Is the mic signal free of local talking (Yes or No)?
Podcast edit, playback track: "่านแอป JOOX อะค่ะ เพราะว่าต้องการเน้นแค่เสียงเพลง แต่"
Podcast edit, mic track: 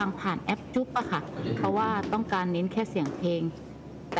No